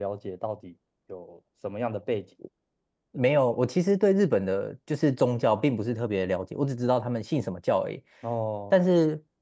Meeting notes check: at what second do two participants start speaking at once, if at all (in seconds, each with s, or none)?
none